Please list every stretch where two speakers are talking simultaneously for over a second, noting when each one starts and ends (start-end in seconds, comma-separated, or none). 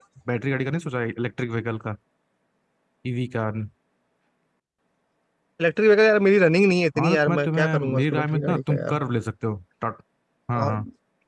7.0-9.0